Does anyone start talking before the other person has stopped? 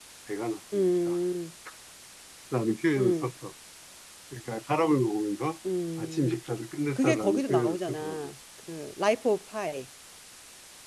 Yes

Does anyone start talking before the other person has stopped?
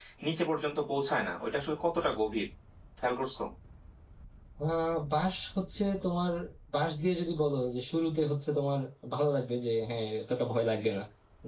No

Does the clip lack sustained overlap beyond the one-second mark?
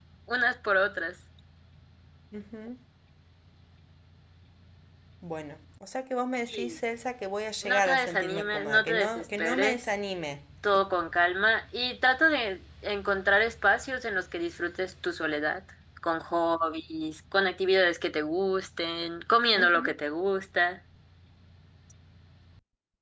No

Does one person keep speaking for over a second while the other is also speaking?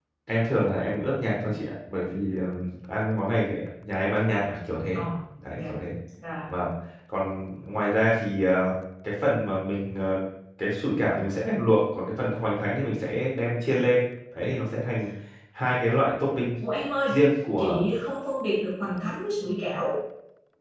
No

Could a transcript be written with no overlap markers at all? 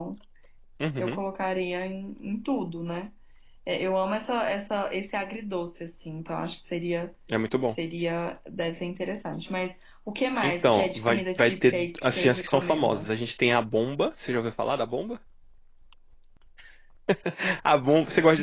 No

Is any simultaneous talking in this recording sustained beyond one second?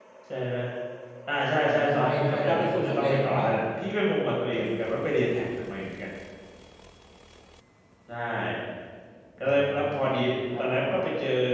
Yes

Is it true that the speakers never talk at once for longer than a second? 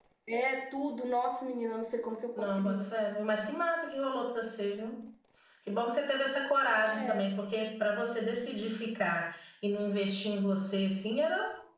Yes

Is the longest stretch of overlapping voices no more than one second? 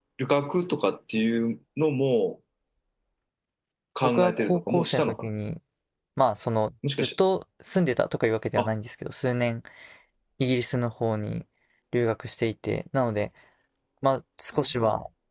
No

